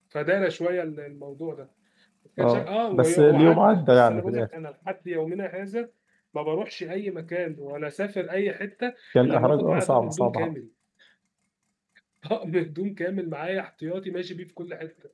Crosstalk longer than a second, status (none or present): present